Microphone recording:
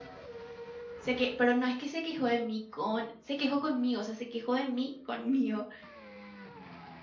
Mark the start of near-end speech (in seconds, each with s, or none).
1.0 s